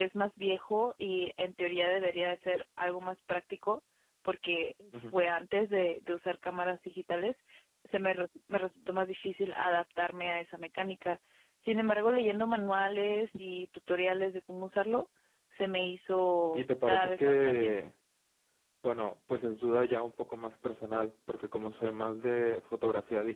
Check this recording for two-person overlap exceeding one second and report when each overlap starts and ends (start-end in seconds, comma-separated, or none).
16.6-17.8